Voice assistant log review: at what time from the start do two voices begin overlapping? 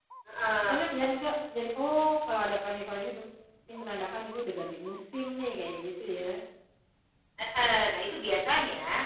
none

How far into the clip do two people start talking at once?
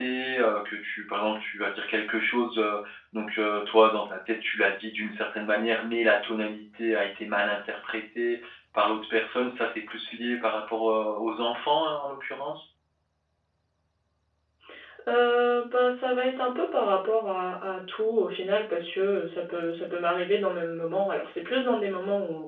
none

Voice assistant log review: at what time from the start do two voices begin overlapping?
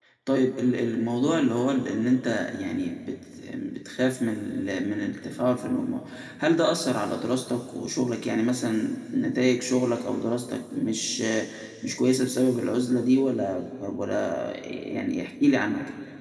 none

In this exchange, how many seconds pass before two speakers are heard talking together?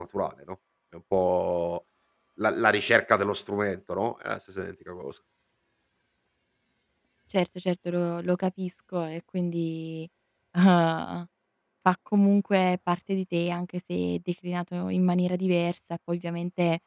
none

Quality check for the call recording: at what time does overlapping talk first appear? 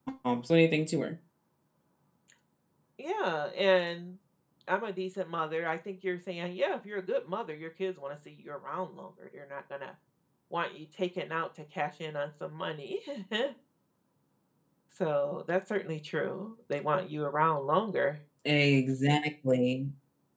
none

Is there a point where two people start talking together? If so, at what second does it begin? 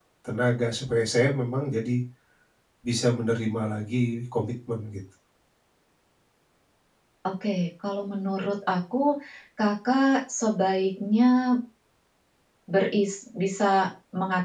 none

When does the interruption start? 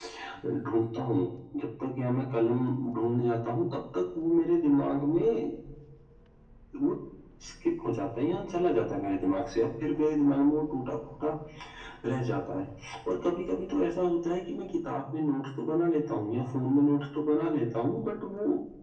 none

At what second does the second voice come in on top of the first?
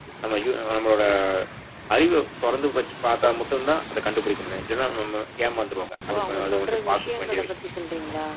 6.1 s

